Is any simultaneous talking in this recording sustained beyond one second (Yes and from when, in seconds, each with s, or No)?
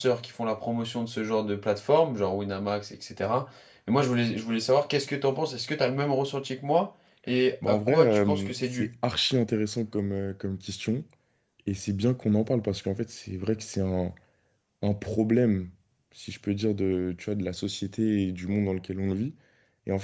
Yes, from 7.6 s